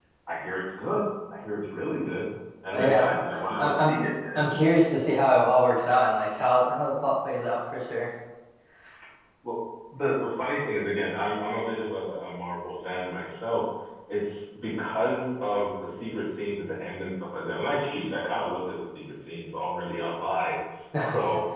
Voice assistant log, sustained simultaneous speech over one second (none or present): present